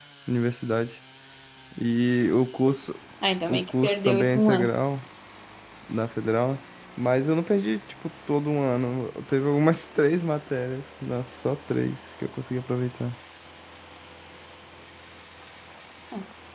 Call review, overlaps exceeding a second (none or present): present